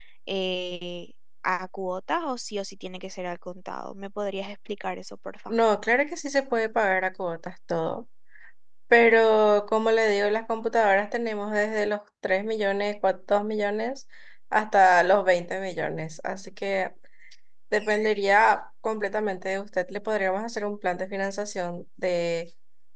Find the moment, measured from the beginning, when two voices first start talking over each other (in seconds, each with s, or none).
none